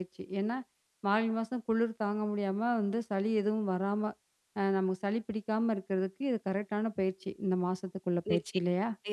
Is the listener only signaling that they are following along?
No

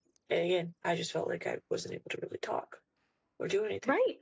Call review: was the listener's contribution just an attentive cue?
No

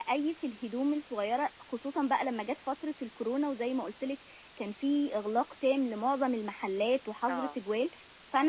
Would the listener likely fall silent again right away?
Yes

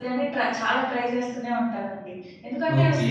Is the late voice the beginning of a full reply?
Yes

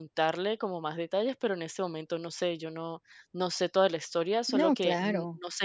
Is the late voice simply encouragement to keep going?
Yes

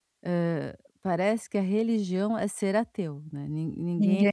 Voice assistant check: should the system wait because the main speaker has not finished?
Yes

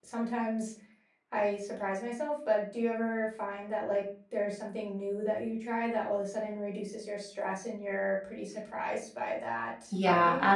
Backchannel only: No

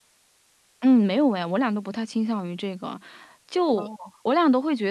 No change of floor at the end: Yes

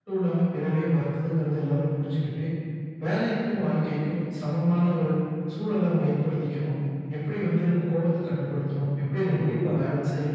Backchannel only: Yes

